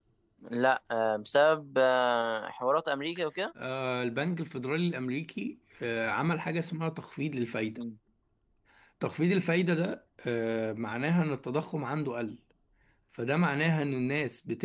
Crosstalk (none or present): none